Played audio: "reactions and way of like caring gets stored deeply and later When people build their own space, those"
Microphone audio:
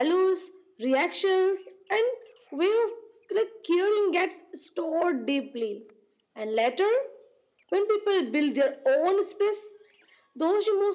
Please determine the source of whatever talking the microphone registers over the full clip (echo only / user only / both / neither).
echo only